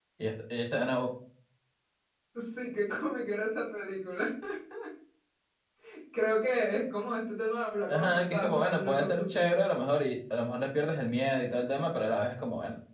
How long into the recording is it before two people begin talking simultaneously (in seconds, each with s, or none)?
7.9 s